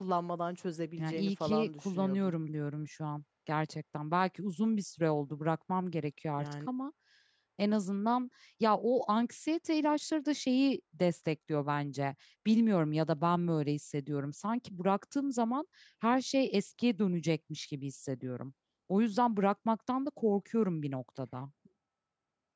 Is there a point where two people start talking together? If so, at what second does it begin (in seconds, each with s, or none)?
1.0 s